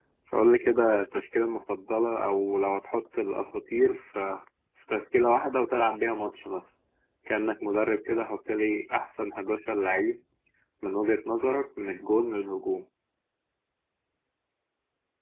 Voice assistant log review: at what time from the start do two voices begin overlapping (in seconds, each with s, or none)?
none